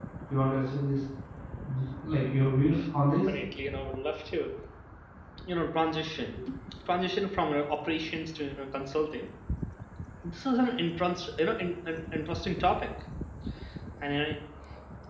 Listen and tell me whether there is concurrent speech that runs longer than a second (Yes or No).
No